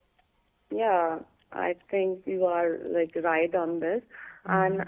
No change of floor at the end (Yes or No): Yes